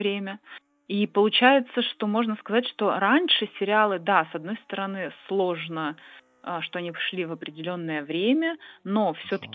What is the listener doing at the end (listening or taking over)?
listening